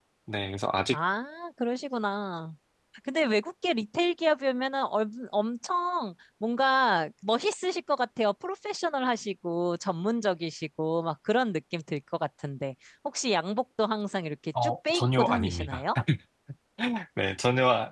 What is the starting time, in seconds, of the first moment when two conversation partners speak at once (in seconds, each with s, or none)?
14.6 s